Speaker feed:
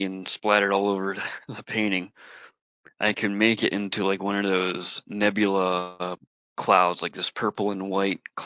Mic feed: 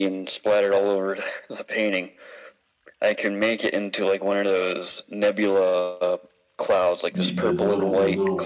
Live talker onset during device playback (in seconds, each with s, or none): 7.2 s